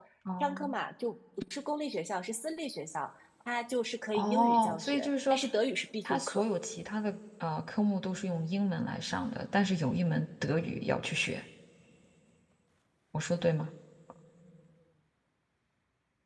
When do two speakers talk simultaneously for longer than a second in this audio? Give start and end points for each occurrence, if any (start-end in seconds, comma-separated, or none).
4.1-5.4